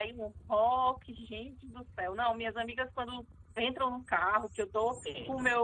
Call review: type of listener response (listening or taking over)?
listening